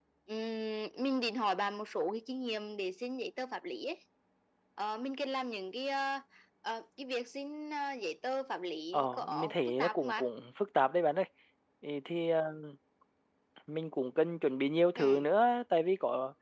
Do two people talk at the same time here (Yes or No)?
Yes